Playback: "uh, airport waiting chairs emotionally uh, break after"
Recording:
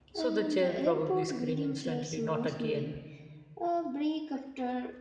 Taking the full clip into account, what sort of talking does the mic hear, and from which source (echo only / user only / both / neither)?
both